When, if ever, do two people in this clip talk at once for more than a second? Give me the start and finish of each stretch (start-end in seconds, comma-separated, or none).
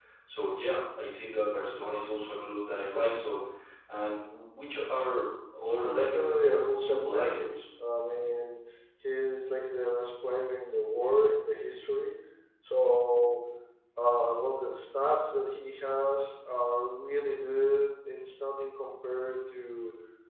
5.6-7.5